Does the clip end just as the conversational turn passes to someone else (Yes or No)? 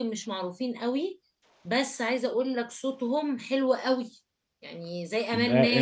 Yes